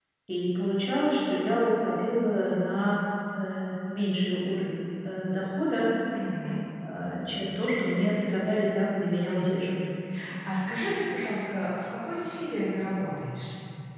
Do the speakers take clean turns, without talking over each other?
Yes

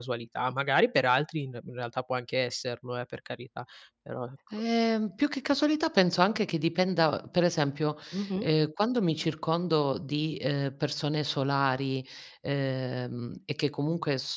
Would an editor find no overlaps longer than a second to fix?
Yes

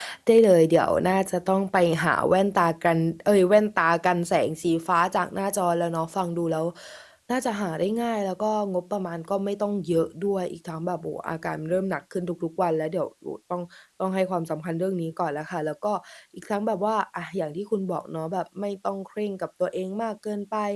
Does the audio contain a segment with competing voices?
No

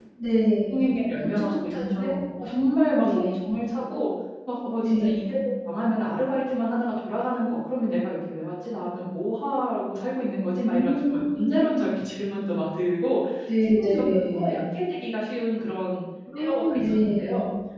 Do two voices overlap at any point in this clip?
Yes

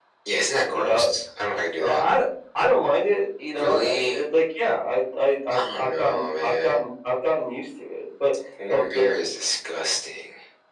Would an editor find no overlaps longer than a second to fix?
No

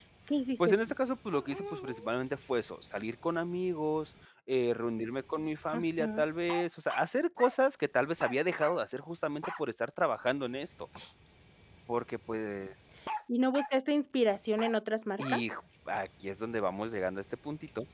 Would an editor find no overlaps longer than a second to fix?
Yes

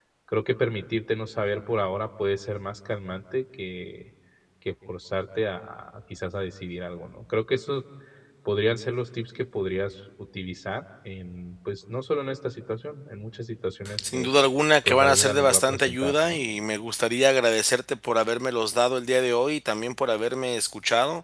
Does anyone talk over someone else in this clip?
Yes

